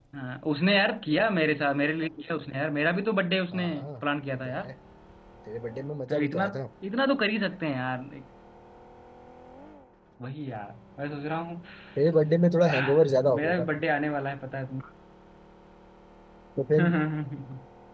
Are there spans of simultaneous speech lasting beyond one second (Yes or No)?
No